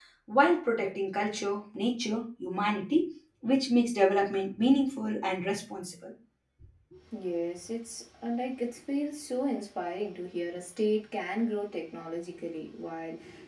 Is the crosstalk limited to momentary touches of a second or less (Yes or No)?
Yes